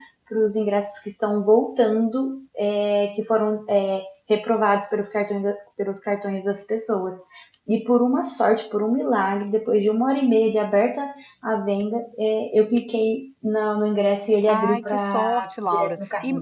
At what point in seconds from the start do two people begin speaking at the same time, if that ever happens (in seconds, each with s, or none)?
14.5 s